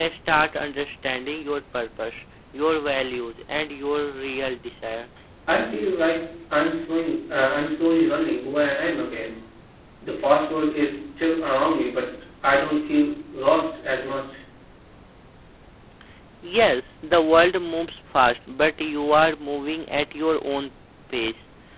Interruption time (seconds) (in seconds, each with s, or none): none